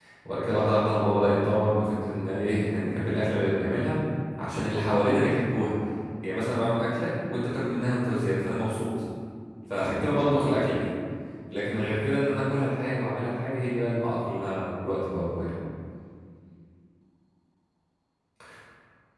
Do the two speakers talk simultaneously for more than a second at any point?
No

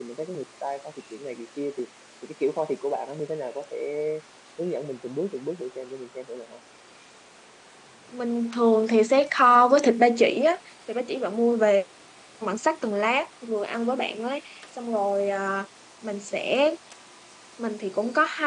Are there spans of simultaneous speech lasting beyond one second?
No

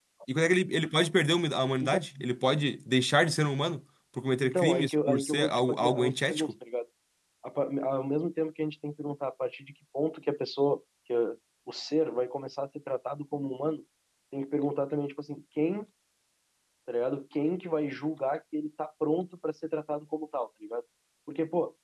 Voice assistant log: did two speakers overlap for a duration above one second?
Yes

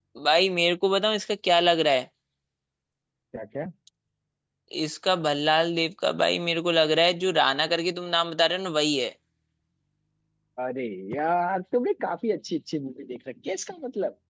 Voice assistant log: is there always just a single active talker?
Yes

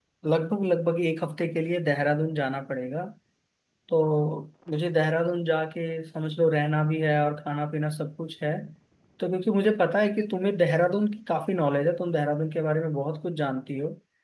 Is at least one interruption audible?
No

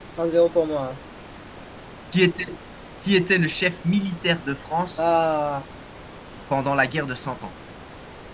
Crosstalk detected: No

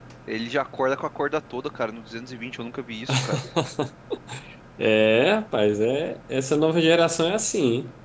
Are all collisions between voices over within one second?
Yes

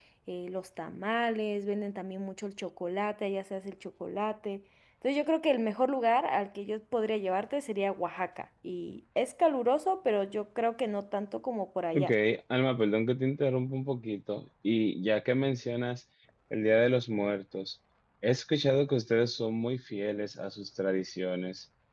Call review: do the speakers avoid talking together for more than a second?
Yes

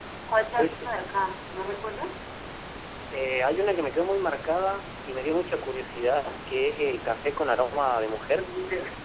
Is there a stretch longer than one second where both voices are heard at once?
No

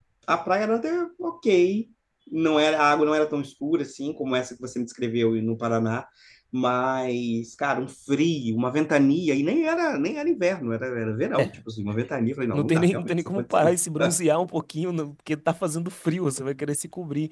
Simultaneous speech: Yes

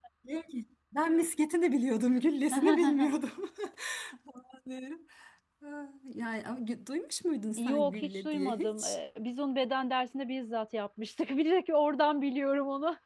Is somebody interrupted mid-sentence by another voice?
Yes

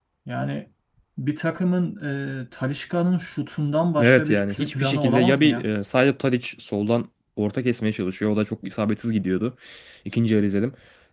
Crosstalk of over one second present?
Yes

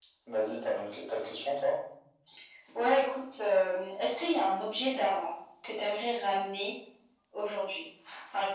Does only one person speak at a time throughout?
Yes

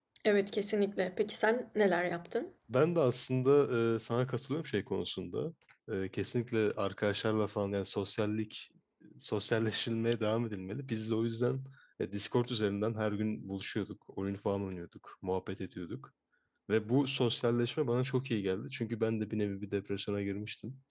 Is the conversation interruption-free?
Yes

